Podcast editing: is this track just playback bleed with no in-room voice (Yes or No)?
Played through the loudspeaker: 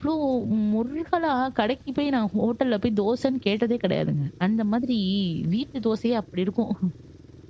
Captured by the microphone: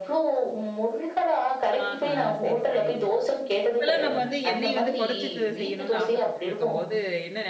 No